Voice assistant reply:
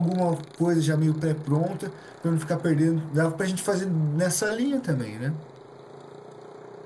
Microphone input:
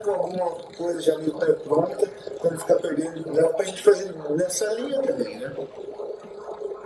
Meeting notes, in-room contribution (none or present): none